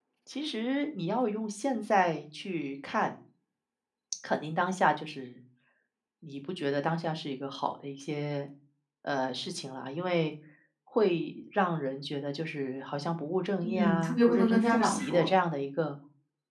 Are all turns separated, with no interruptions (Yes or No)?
No